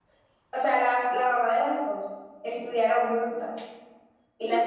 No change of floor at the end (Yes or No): No